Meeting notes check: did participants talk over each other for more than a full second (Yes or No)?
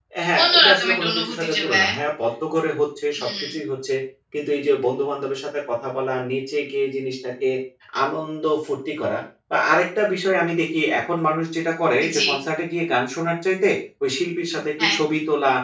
Yes